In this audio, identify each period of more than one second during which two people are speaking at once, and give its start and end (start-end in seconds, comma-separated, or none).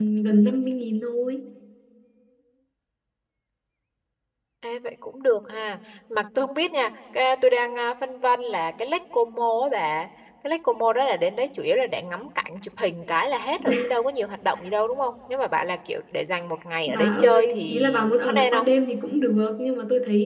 16.9-18.7